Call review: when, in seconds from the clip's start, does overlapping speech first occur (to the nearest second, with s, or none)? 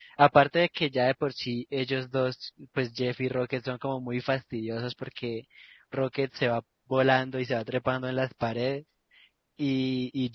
none